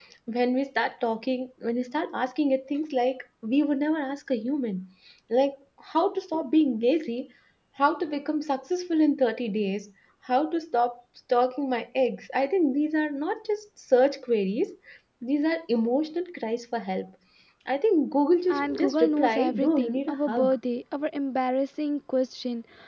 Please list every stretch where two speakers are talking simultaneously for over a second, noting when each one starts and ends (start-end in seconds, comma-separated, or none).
18.5-20.5